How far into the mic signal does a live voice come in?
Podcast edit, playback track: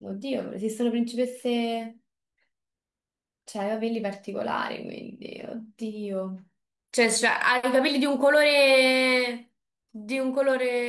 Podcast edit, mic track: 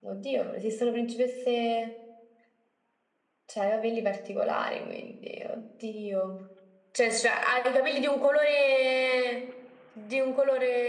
none

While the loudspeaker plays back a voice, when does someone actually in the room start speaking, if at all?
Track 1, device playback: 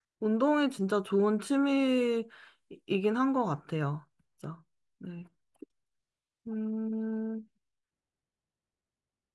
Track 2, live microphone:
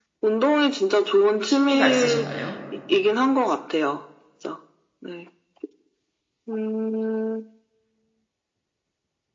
1.4 s

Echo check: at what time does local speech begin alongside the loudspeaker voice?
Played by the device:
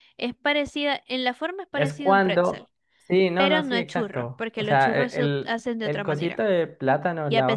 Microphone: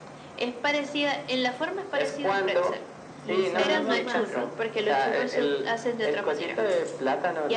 3.2 s

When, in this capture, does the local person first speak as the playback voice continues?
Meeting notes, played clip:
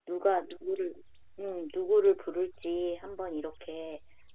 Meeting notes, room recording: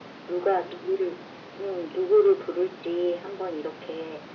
none

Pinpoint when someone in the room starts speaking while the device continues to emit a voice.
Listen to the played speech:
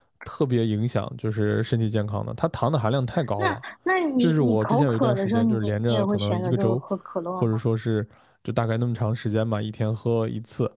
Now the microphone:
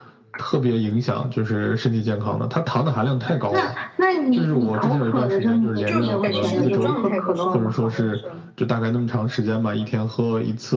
5.8 s

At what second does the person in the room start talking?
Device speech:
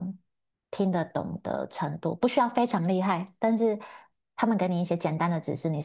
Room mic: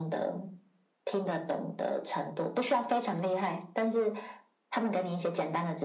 none

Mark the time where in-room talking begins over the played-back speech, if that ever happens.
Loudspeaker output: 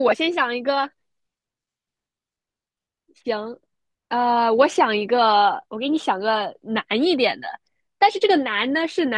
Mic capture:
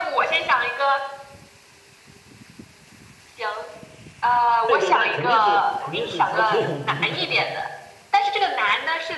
4.6 s

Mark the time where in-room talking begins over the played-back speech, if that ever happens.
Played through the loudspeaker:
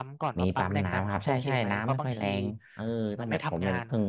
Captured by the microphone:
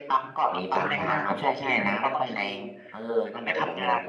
0.7 s

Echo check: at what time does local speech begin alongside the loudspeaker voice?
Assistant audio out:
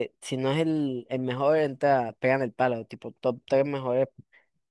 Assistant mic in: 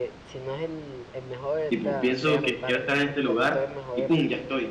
1.7 s

